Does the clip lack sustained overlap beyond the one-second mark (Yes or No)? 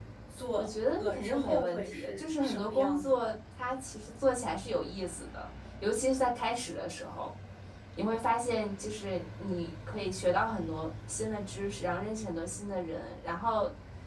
No